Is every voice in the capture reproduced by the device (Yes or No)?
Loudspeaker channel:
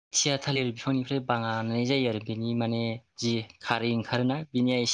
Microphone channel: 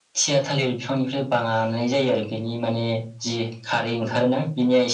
No